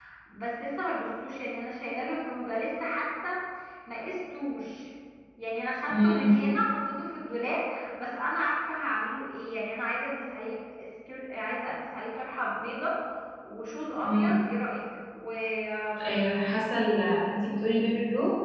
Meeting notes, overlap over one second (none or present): none